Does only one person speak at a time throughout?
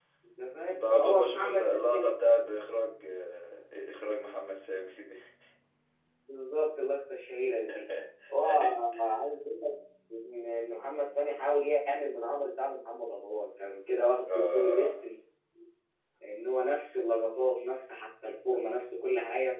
No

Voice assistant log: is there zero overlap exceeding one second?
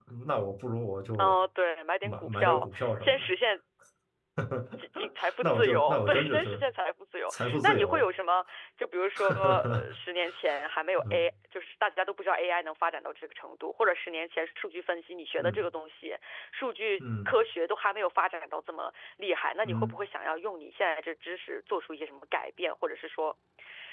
No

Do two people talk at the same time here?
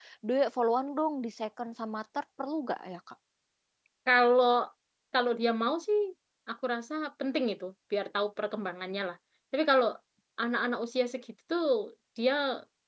No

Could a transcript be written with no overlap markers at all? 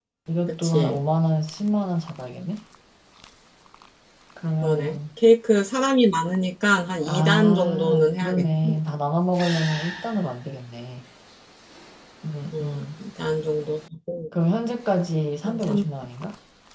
No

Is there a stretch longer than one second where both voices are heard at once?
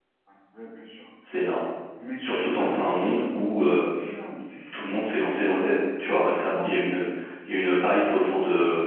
Yes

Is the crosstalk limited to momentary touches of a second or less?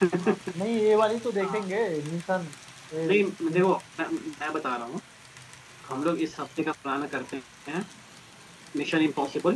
Yes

